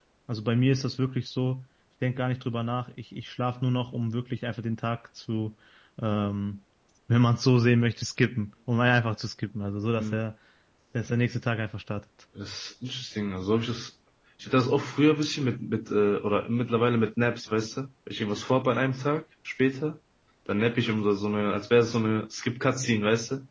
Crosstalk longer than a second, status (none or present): none